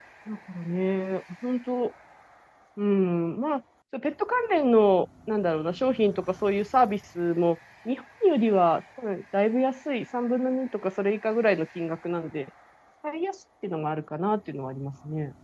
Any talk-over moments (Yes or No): No